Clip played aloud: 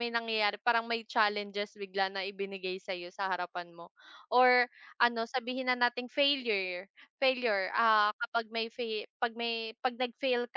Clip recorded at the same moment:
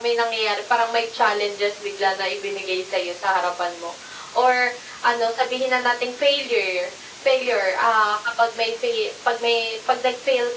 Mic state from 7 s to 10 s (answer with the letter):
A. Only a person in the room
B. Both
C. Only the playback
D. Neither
C